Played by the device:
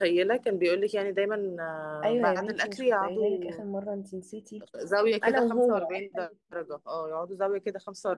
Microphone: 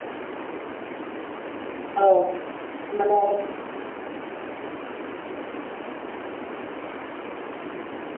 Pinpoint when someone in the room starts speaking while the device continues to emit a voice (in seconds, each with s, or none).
2.0 s